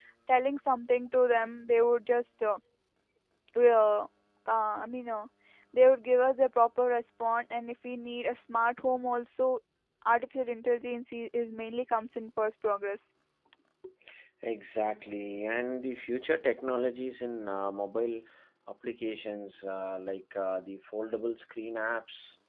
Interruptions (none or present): none